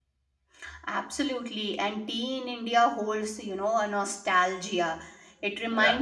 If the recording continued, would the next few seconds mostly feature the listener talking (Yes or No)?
No